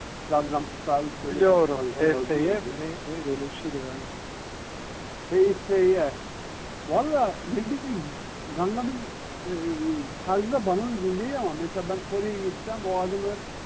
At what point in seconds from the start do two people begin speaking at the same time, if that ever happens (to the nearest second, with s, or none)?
1 s